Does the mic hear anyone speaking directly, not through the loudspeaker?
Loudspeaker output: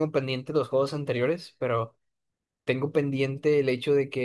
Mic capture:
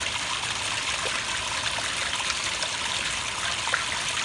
No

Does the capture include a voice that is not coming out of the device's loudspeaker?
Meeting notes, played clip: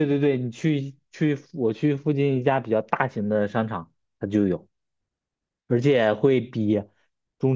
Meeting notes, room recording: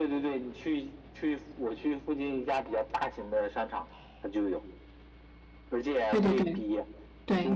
Yes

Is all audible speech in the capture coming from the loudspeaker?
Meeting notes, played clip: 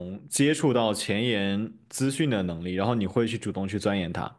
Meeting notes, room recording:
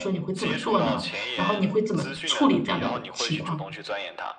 No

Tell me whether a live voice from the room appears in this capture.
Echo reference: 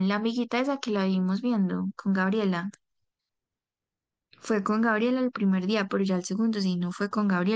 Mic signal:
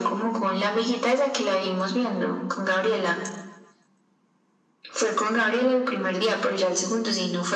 No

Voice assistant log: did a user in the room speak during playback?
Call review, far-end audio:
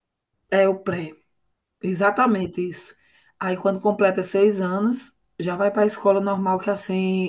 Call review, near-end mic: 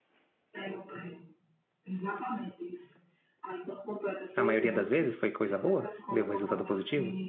Yes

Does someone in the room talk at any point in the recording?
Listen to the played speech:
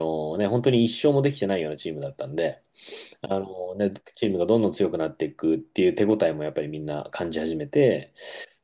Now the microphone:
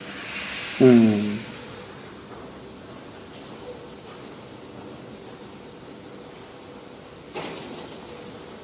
Yes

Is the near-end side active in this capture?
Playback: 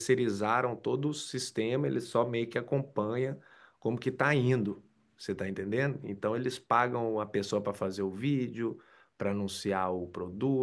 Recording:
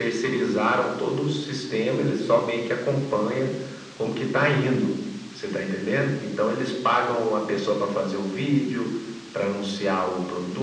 No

